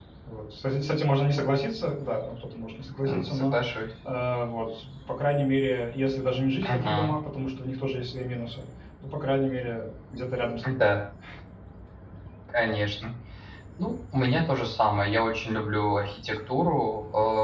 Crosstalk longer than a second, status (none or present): none